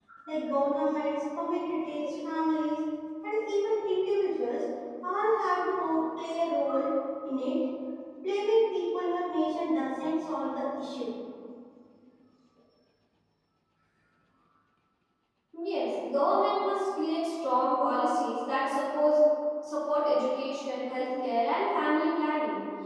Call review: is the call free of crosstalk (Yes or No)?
Yes